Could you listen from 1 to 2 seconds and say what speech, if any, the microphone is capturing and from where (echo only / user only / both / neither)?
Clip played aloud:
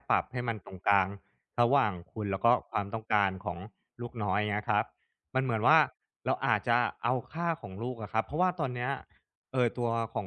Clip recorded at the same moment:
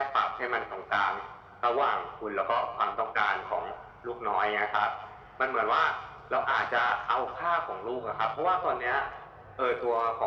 echo only